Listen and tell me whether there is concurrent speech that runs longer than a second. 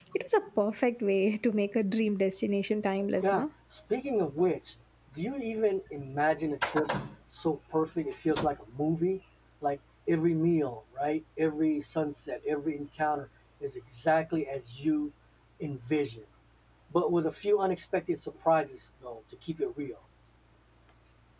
No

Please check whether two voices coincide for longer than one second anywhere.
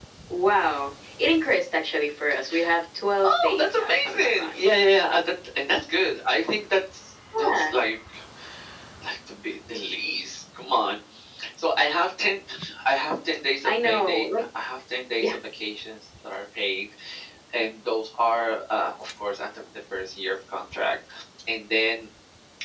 Yes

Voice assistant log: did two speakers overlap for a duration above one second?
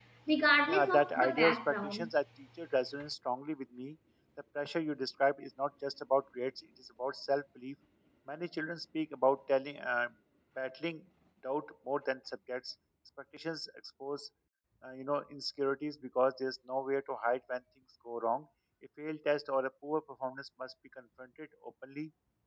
Yes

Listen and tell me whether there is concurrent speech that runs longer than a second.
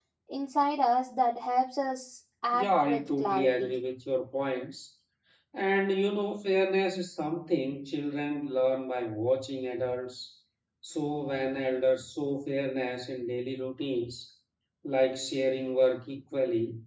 Yes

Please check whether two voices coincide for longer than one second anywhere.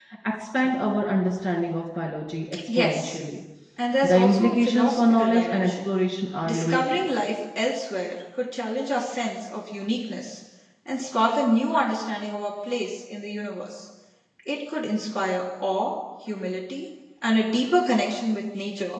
Yes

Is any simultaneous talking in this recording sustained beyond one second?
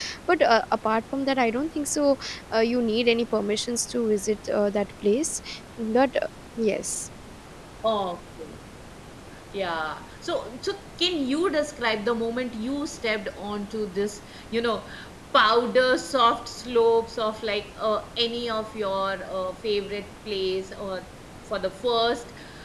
No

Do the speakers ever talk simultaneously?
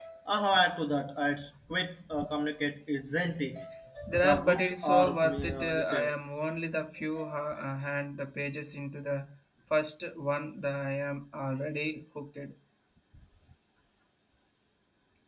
Yes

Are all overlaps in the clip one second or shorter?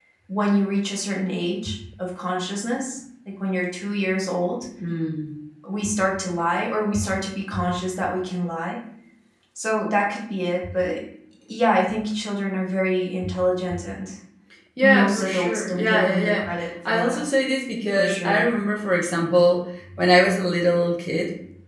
No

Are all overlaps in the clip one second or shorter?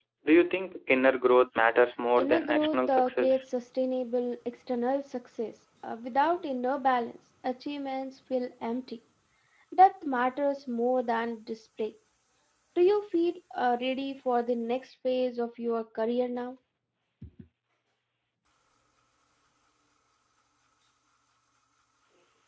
No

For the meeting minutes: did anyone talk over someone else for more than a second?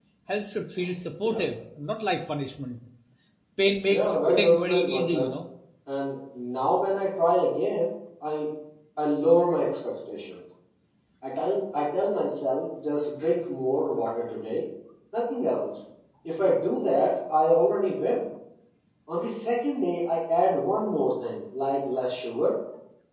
Yes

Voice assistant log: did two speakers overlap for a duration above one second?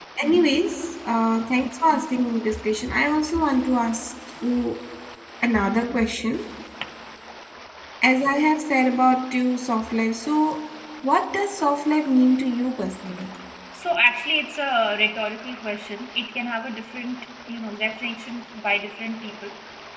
No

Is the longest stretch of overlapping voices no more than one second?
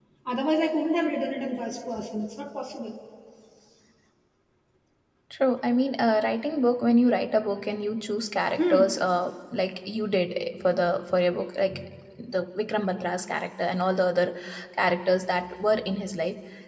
Yes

